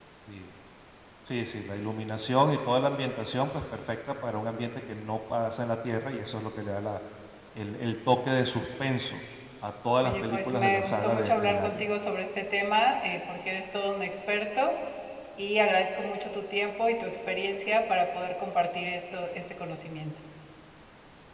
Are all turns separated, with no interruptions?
No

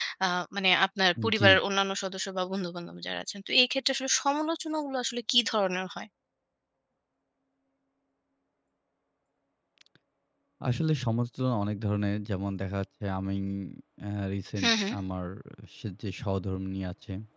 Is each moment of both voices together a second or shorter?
Yes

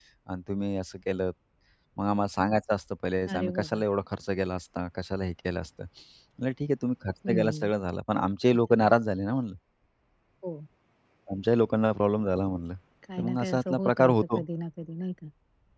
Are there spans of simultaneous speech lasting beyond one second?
Yes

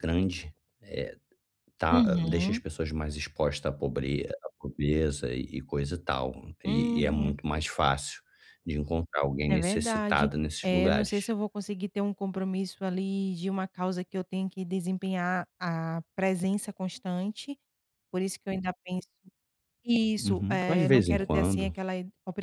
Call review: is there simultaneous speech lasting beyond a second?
Yes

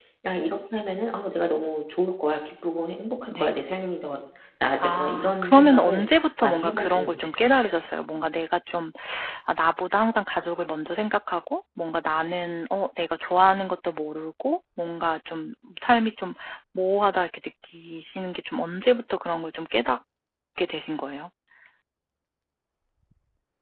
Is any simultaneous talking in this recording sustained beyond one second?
Yes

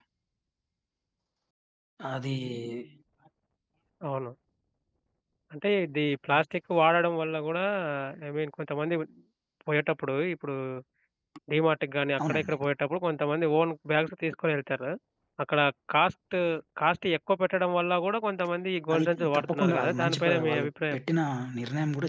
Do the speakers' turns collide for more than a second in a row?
Yes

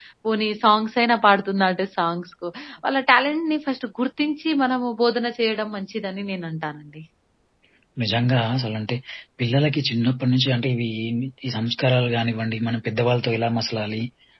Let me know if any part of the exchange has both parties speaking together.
No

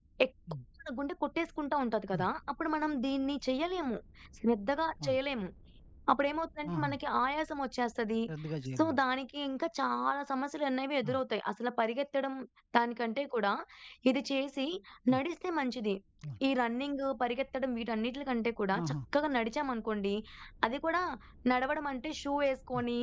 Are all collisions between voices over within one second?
Yes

